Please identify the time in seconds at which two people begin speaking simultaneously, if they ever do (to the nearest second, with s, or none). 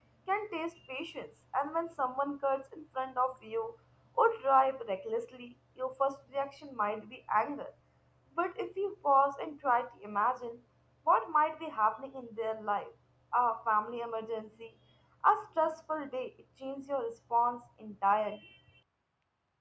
none